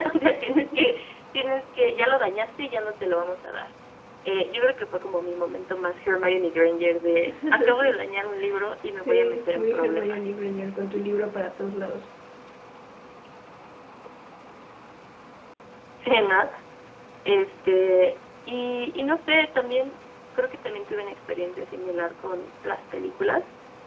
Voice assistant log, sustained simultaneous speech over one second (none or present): present